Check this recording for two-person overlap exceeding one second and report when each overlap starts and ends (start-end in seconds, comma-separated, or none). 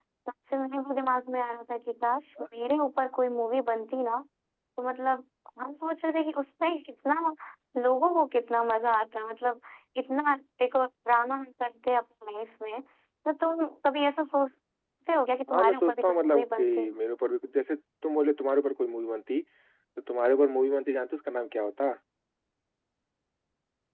15.5-16.9